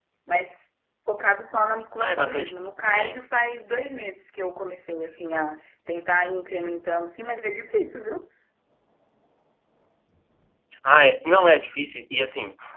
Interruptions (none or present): present